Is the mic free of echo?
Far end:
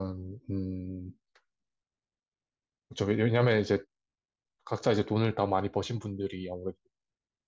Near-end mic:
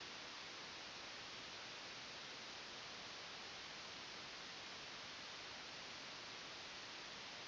Yes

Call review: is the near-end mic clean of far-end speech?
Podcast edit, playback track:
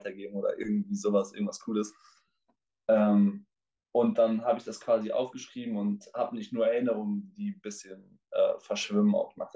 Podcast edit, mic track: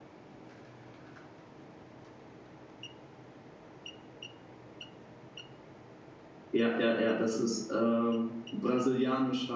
Yes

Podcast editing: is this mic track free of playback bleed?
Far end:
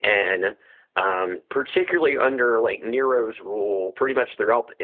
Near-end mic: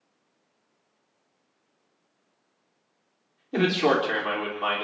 Yes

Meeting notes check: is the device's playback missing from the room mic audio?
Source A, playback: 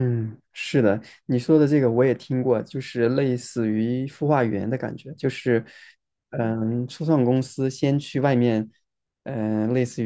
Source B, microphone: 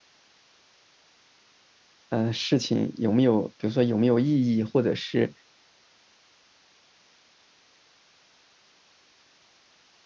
Yes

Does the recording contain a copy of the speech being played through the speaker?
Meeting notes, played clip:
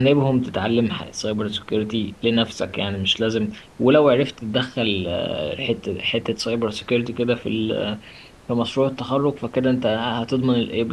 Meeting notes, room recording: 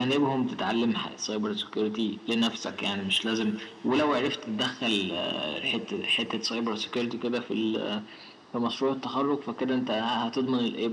Yes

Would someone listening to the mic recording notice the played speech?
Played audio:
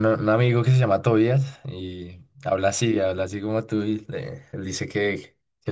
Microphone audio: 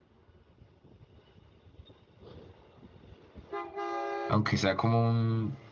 No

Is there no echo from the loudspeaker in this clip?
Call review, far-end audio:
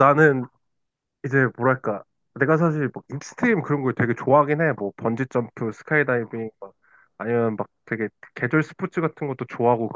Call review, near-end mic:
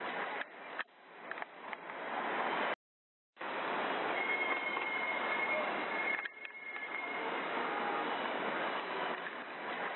Yes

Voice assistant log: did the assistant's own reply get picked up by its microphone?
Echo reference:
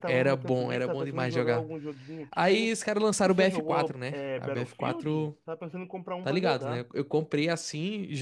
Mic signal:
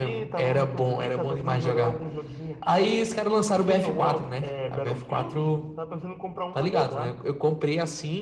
Yes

